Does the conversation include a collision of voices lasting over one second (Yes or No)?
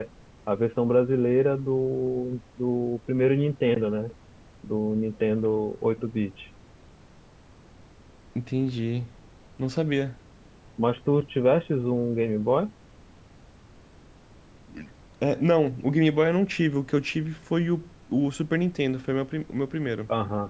No